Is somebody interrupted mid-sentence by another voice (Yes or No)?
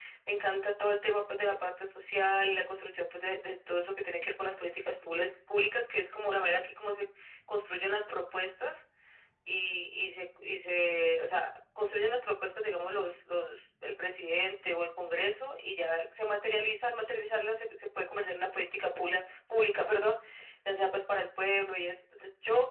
No